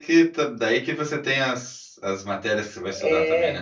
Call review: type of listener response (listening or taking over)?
taking over